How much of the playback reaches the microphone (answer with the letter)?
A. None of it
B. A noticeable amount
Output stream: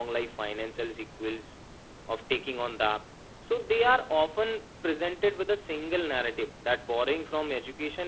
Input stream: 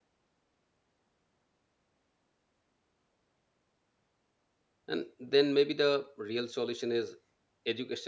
A